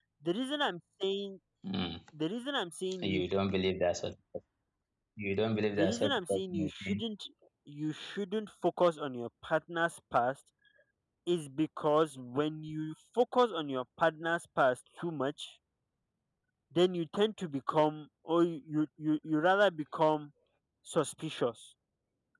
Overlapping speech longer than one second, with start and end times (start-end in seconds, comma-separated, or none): 5.7-7.0